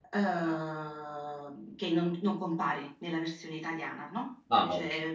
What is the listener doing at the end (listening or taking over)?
listening